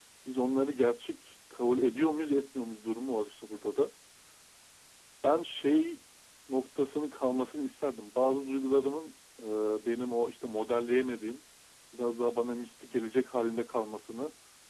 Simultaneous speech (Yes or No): No